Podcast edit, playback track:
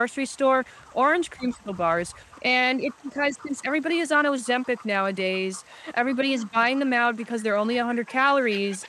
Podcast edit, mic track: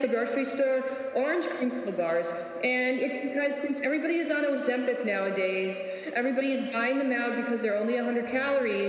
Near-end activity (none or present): none